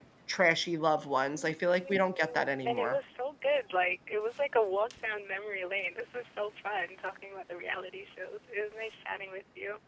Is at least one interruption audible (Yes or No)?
Yes